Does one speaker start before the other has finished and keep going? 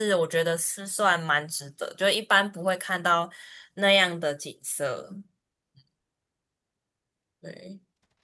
No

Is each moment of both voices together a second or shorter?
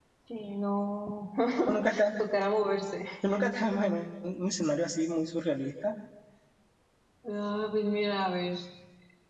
Yes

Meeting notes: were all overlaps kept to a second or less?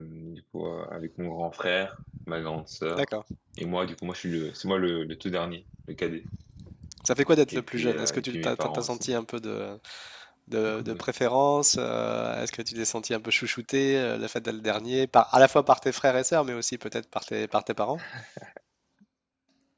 No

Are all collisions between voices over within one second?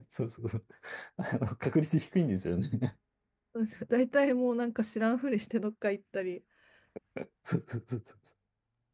Yes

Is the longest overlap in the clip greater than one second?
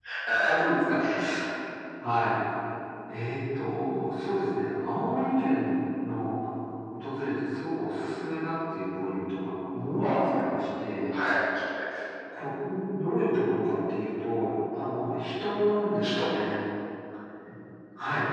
No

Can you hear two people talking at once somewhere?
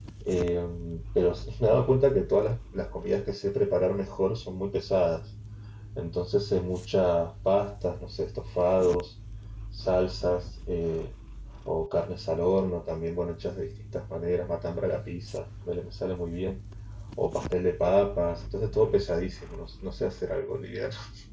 No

